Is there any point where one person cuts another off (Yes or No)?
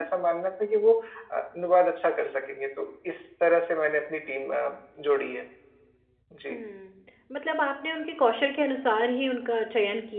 No